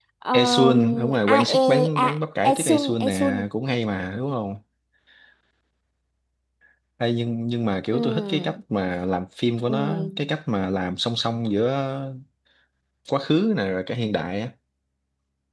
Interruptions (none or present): present